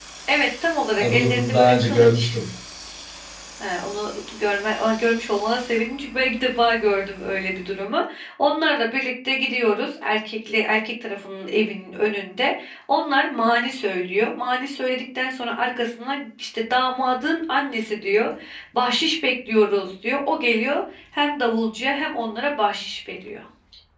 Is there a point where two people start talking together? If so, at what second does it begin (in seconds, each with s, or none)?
1.0 s